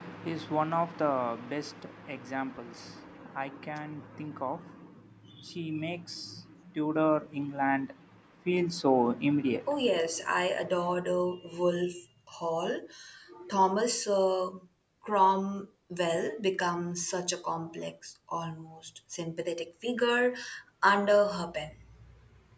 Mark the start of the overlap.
none

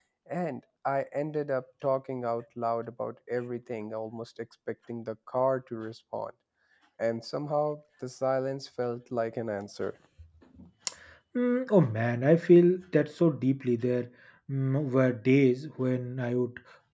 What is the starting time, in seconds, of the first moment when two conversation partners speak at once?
none

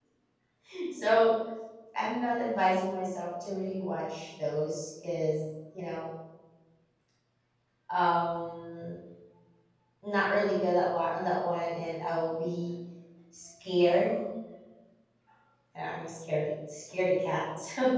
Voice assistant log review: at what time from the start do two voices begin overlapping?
none

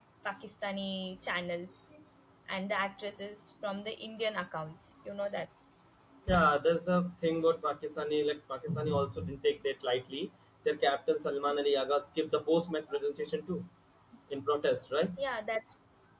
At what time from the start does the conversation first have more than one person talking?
none

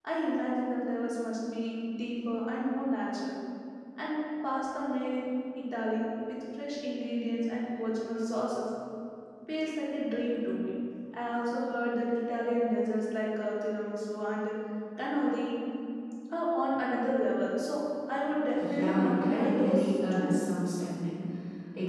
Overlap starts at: 18.5 s

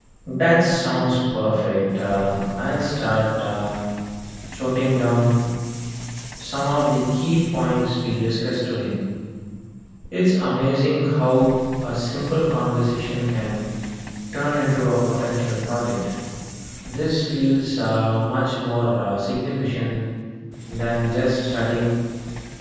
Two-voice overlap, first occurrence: none

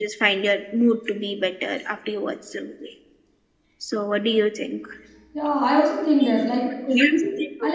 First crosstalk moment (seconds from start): none

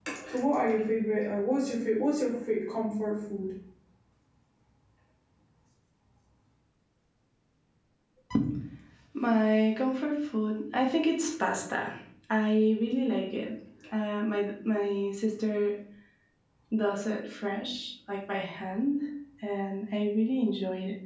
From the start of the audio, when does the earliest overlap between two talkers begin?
none

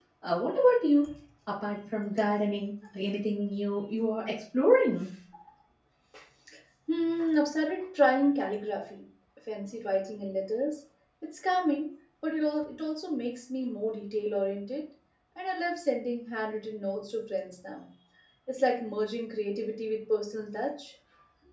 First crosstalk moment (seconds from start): none

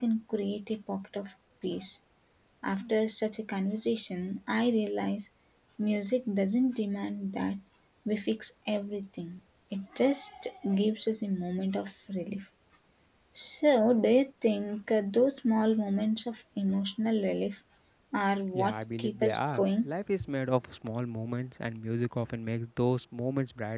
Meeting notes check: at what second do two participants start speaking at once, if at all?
18.5 s

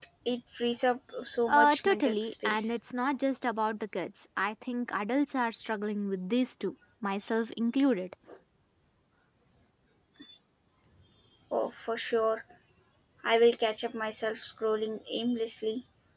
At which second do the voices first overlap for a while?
1.5 s

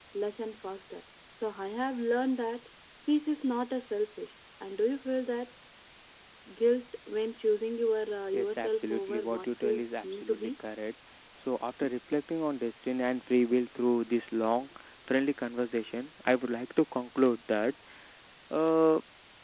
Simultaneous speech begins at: 8.3 s

